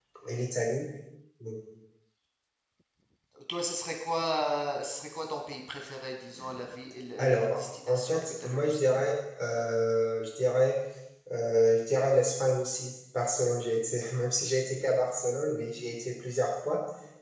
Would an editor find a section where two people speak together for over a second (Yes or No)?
Yes